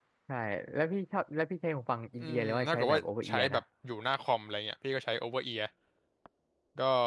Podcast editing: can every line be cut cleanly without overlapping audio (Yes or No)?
No